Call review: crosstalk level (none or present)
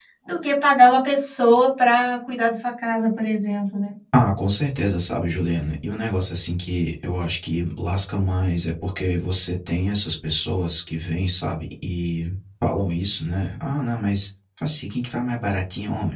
none